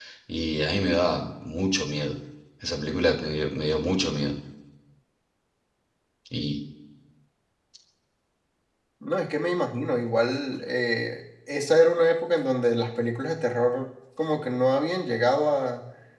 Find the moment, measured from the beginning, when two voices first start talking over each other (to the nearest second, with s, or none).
none